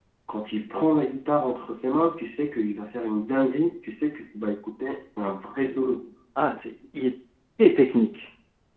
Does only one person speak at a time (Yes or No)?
Yes